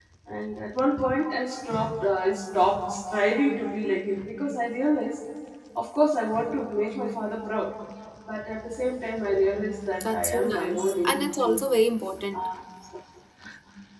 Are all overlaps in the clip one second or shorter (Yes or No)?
No